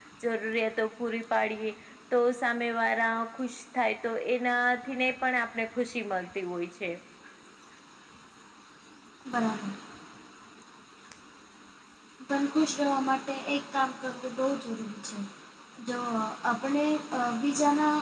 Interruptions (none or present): none